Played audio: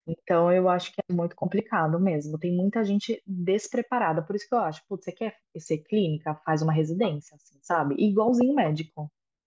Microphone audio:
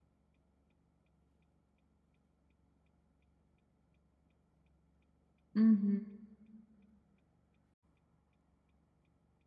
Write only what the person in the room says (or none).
Uhum.